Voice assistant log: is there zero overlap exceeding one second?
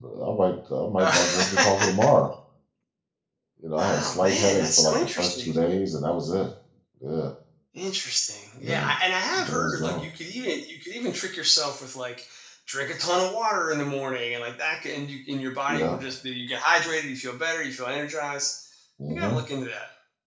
No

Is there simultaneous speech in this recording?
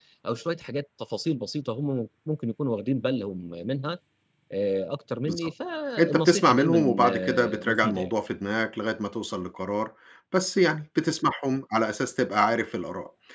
Yes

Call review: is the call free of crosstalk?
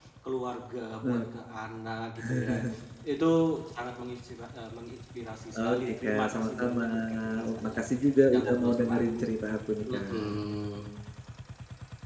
No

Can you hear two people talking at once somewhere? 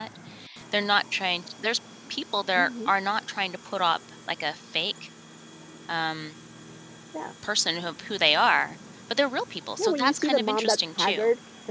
Yes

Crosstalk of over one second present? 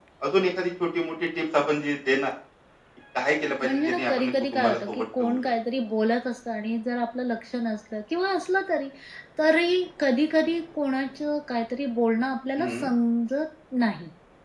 Yes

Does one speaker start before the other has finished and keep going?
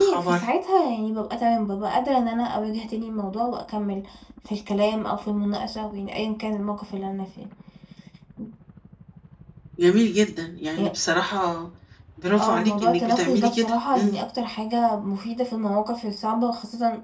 Yes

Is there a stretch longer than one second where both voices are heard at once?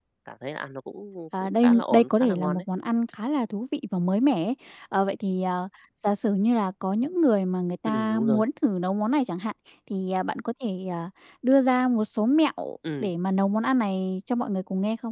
Yes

